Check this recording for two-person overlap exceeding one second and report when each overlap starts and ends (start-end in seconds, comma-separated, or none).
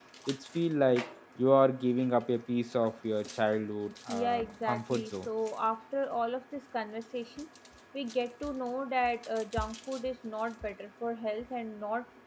4.1-5.3